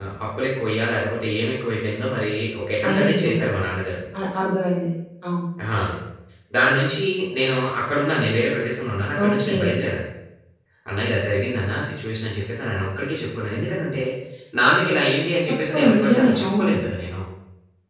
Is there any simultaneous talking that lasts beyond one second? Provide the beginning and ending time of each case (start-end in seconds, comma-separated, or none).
15.5-16.7